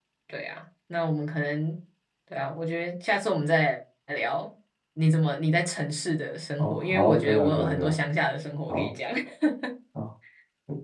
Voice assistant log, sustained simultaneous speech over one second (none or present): present